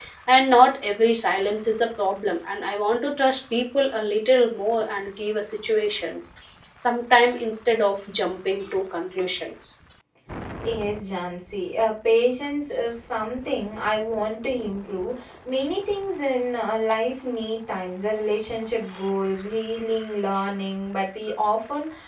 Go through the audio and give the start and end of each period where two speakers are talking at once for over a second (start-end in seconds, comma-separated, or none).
none